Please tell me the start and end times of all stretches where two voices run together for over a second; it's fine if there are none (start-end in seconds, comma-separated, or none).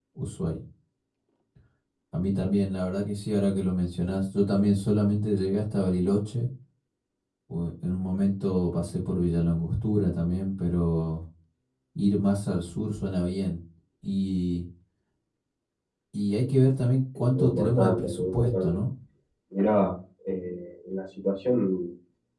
17.4-18.8